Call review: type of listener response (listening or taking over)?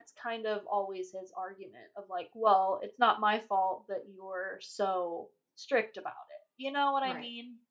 taking over